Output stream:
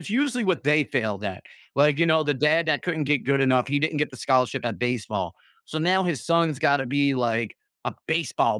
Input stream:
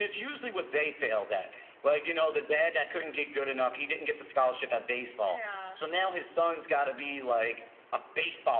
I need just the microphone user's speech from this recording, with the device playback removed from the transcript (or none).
Yeah.